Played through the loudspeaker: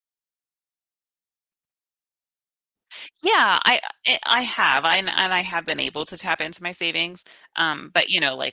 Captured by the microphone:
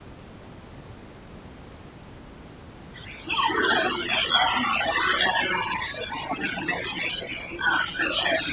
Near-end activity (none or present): none